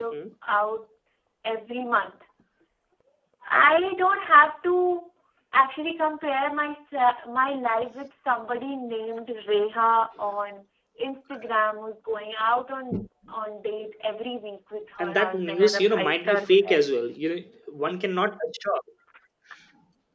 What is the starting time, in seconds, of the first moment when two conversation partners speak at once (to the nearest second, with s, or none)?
15 s